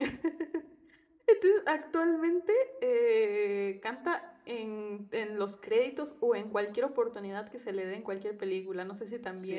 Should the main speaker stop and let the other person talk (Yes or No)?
Yes